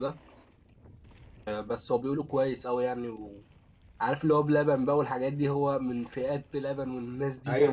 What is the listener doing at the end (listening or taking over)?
taking over